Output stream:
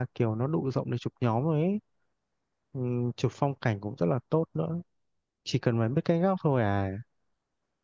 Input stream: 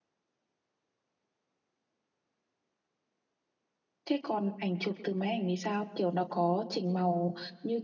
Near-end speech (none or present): present